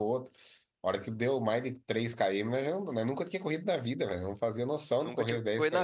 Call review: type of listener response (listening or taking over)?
taking over